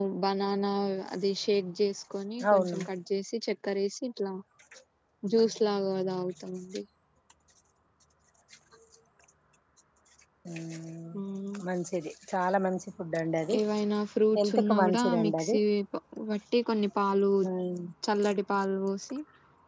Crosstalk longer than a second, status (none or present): present